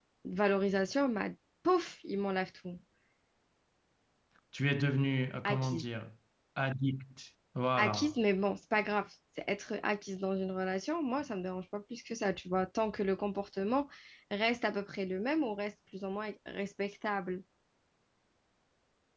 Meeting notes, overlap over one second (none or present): none